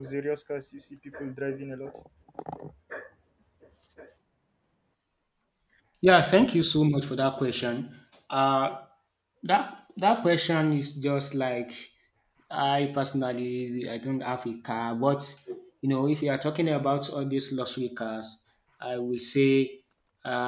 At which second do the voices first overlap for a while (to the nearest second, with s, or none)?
none